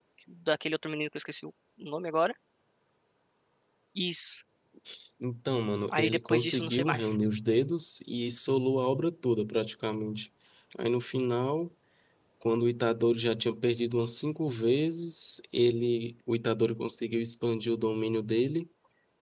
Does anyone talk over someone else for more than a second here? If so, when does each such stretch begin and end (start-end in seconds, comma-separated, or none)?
5.9-7.2